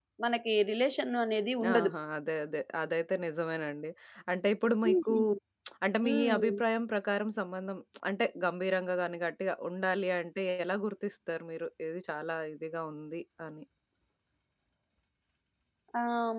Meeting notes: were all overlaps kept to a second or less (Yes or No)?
Yes